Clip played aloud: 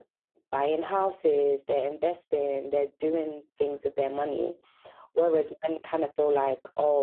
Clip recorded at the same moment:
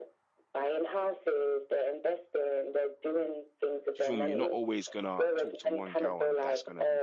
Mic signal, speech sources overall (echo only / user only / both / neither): both